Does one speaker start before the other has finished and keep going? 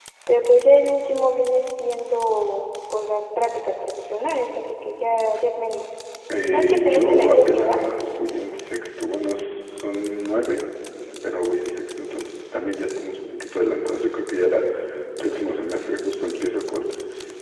Yes, from 6.5 s

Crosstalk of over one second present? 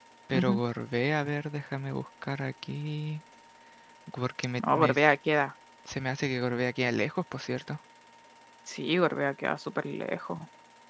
No

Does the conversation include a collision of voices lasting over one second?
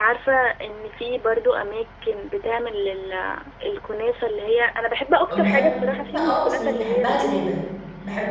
Yes, from 5.3 s

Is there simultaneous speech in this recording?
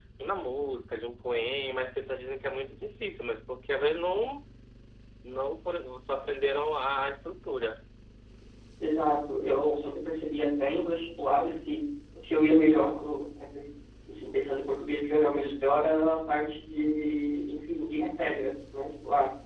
No

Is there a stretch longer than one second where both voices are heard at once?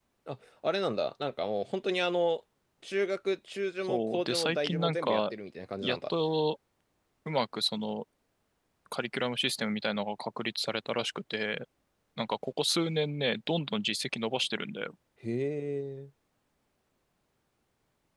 Yes, from 3.8 s

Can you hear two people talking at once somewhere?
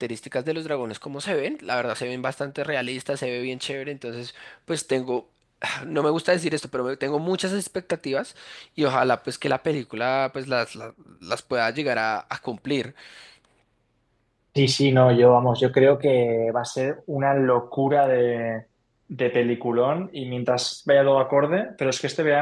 No

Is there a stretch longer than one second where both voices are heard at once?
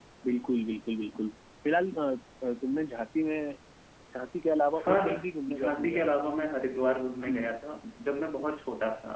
Yes, from 4.8 s

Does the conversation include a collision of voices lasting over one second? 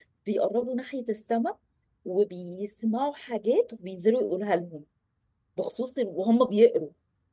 No

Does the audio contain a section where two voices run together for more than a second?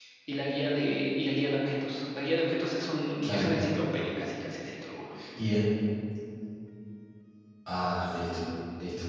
No

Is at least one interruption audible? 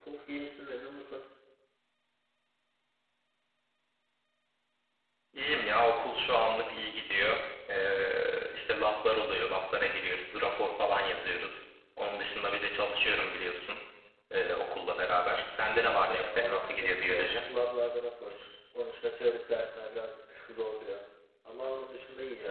Yes, from 15.7 s

